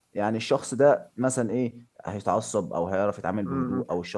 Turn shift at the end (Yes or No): Yes